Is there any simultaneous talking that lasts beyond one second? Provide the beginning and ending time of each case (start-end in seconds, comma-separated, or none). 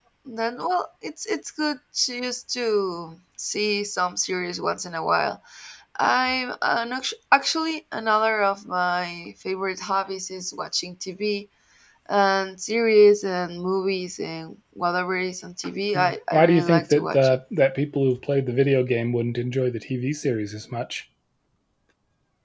15.9-17.4